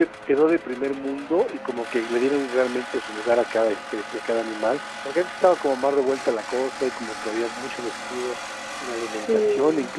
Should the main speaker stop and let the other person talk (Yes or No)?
No